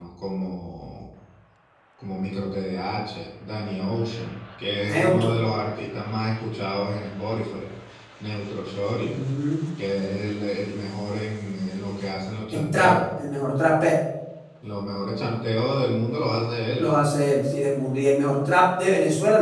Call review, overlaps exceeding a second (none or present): none